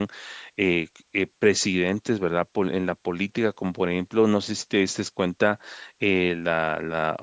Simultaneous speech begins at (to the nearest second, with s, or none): none